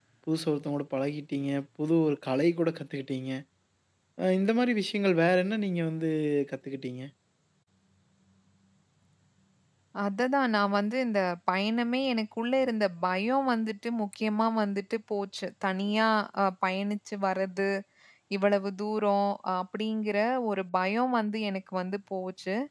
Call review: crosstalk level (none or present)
none